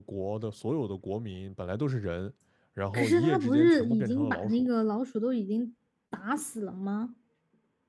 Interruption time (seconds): 3 s

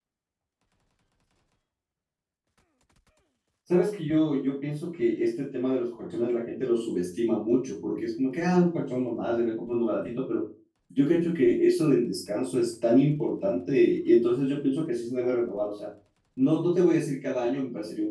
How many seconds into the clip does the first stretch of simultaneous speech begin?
none

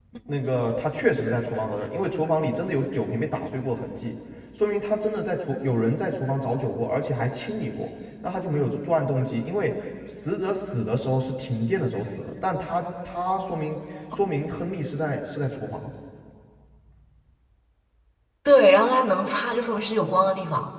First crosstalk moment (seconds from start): none

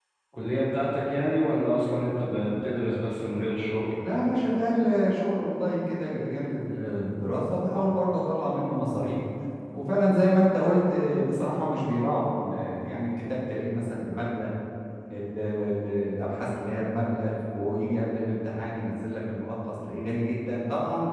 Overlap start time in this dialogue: none

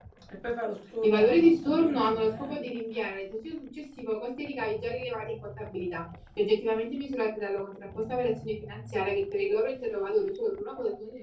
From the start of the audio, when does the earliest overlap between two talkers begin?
1 s

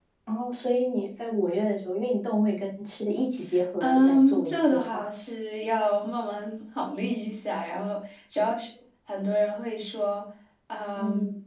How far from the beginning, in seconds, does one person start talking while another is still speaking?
4 s

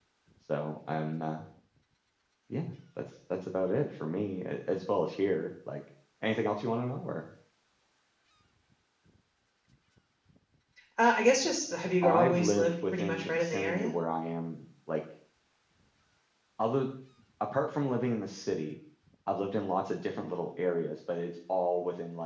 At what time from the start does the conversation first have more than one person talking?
12 s

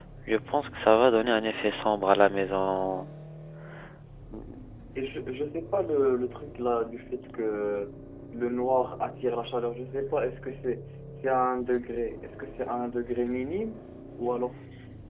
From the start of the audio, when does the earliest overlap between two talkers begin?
none

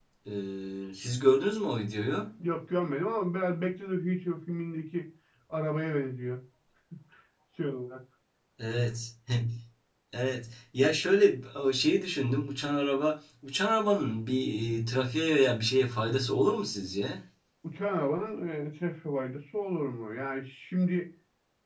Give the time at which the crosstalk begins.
none

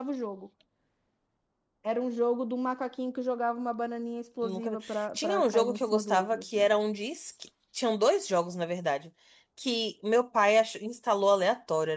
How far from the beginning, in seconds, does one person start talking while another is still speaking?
4 s

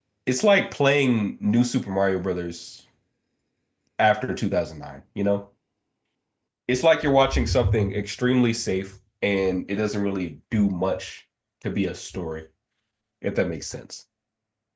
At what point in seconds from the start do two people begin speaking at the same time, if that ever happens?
none

